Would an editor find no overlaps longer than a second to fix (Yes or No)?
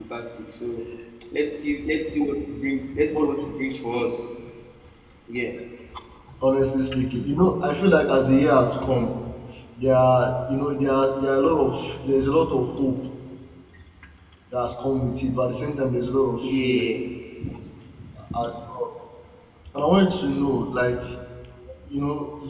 Yes